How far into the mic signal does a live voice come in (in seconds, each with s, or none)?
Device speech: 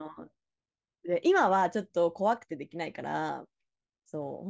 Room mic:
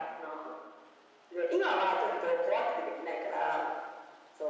none